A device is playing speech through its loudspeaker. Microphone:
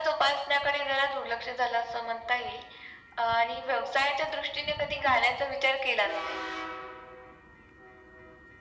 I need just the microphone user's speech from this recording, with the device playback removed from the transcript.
none

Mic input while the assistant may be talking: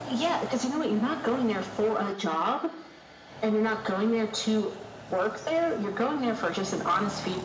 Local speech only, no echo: none

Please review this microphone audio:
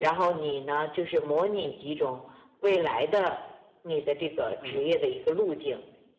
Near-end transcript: 嗯

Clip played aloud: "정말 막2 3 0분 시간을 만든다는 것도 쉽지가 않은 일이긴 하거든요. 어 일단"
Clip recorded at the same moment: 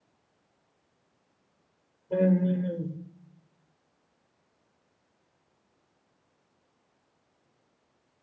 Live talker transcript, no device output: 아, 음.

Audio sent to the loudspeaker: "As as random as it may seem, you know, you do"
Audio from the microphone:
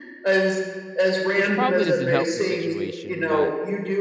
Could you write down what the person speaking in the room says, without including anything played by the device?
which probably doesn't help the situation, but

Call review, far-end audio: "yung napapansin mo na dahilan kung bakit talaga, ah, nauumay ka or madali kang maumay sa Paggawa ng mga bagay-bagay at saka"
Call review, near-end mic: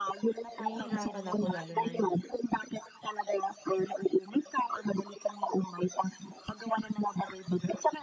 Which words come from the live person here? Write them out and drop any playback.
nahihirapan ako lalo na yung

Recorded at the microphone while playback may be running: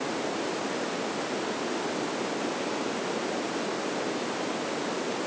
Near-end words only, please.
none

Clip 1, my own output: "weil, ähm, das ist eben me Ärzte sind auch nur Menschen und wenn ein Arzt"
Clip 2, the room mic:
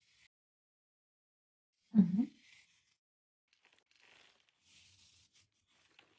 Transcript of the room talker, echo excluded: Mhm.

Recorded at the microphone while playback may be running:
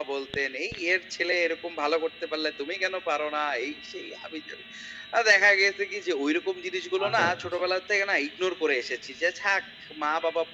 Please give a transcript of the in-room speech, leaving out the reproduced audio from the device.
আচ্ছা, আচ্ছা, আচ্ছা।

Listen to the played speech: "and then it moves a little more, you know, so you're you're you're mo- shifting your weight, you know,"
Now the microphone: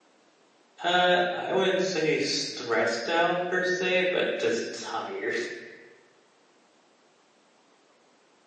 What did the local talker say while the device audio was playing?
Uh, I wouldn't say stressed out per se, but just tired,

